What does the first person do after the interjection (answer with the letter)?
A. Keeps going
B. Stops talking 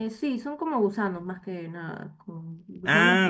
B